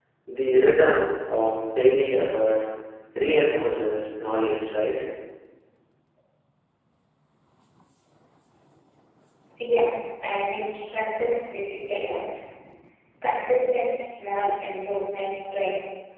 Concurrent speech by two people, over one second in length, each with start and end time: none

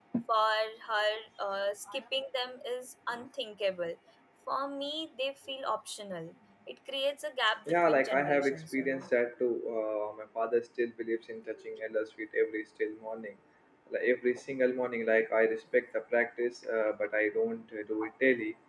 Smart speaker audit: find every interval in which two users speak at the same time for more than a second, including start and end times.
7.9-9.1

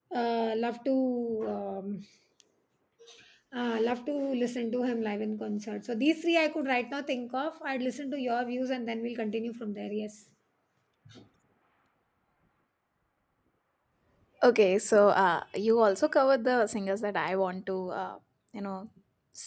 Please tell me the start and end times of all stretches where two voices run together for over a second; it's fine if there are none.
none

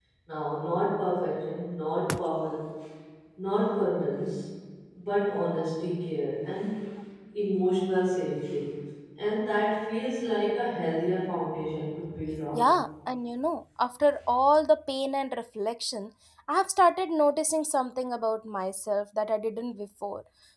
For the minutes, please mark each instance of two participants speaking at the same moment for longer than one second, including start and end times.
none

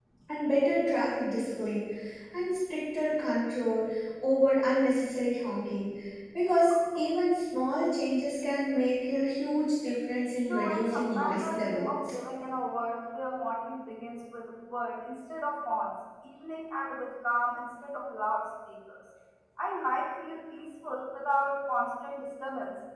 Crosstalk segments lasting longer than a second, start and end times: 10.5-12.1

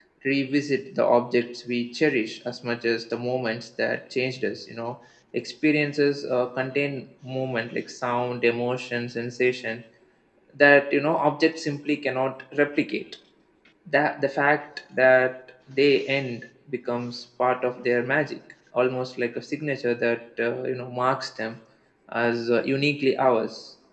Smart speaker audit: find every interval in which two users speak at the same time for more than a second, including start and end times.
none

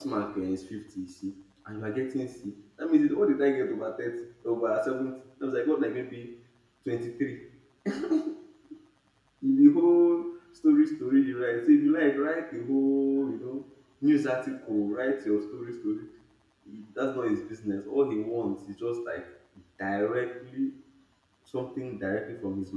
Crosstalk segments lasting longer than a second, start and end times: none

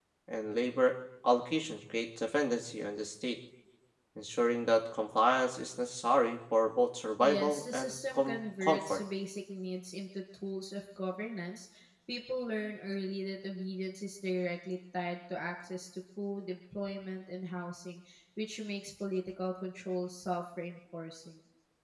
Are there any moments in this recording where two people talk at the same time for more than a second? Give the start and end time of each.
7.2-9.0

